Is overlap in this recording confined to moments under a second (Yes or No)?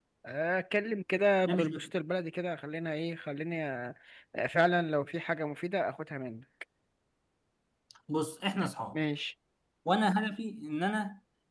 Yes